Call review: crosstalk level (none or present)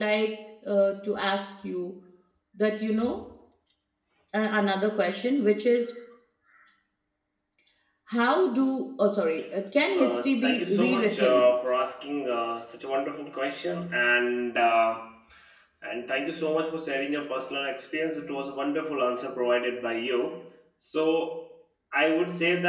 present